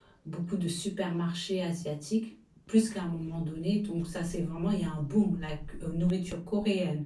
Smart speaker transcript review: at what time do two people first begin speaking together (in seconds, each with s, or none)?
none